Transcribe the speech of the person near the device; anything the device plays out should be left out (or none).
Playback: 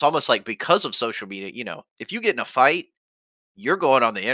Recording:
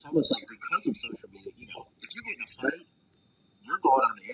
none